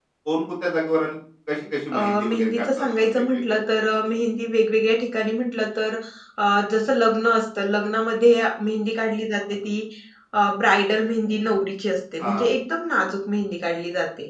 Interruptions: present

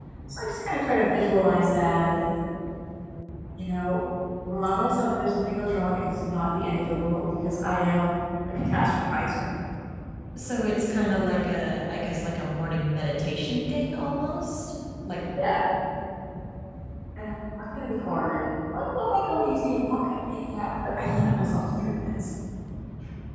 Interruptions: none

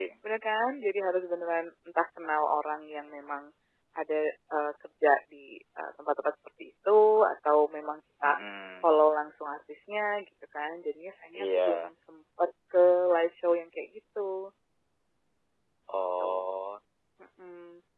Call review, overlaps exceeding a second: none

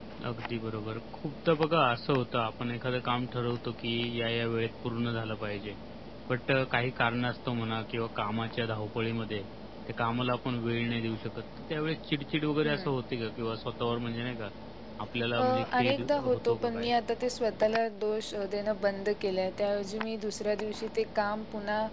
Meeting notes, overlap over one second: present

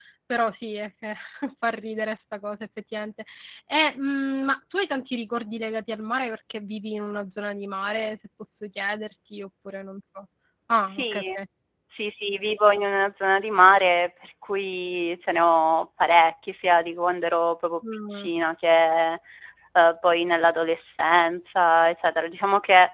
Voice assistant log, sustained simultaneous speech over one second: none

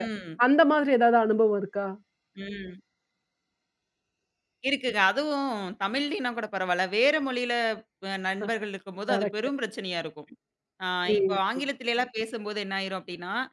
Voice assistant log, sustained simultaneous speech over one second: none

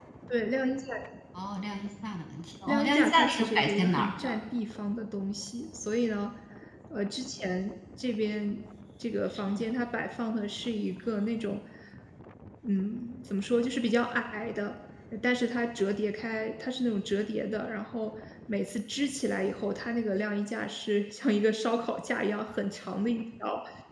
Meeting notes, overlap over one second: present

